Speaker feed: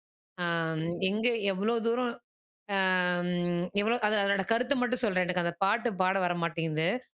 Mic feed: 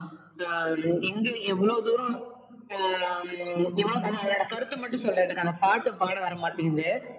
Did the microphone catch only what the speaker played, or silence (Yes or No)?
Yes